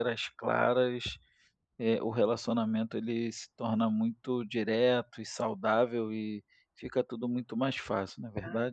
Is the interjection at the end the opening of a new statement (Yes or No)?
Yes